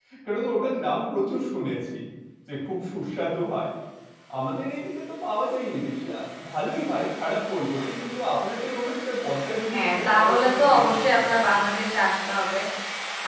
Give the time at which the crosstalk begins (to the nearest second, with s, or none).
10 s